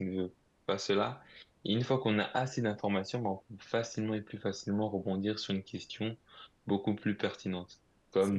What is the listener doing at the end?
listening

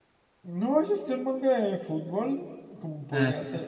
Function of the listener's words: listening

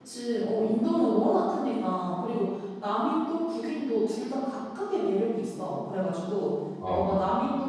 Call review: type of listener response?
listening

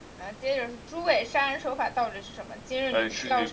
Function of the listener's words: taking over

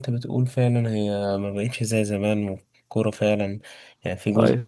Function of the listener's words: listening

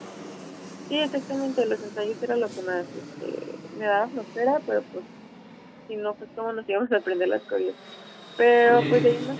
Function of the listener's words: taking over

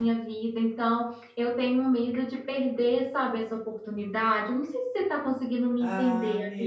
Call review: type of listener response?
taking over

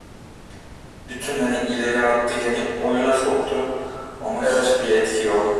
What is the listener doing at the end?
listening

